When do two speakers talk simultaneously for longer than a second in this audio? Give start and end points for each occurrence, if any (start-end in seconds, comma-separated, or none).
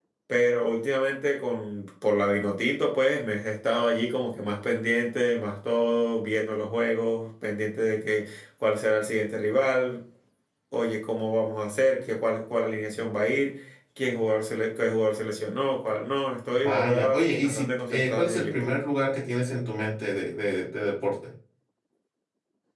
16.5-18.7